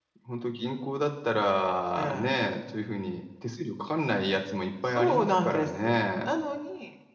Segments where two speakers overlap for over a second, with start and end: 4.9-6.3

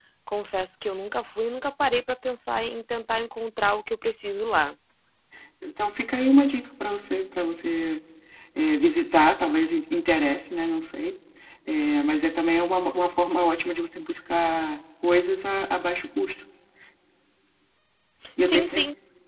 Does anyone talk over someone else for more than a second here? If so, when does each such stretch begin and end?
none

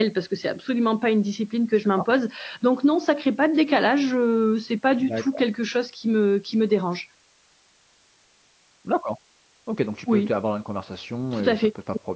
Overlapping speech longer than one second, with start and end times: none

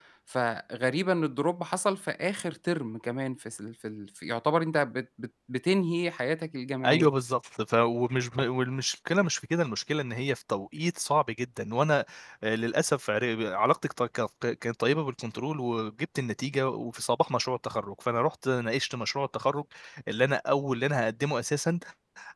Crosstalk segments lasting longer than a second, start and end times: none

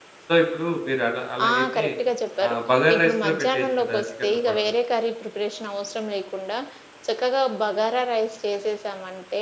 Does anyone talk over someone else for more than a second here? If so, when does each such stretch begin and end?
2.9-4.6

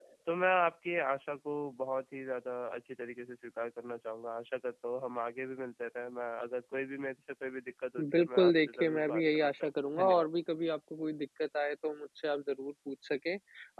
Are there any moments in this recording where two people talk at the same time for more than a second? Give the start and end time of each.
8.0-10.3

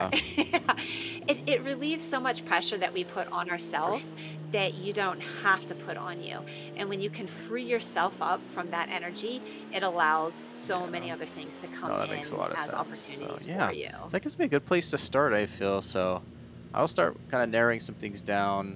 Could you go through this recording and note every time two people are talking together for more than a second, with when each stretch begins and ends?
11.8-13.7

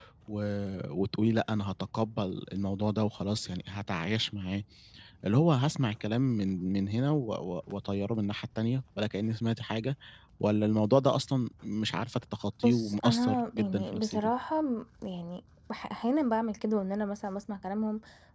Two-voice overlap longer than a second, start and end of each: 12.6-14.3

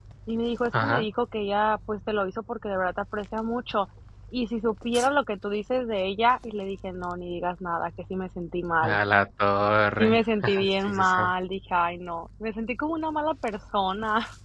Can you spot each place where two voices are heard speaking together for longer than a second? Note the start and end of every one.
10.0-11.2

